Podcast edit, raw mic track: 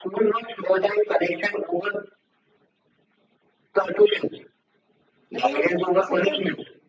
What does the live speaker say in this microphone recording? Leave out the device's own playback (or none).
uh, they also f- suffer